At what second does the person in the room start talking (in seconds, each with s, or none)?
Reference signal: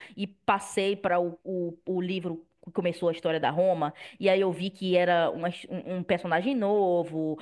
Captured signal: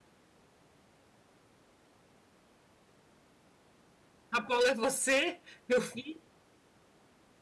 4.3 s